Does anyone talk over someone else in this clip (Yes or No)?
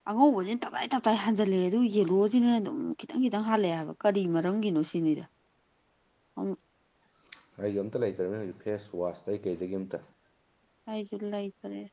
No